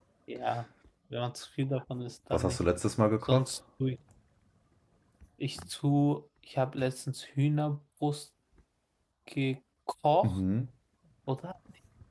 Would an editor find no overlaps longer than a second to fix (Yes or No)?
Yes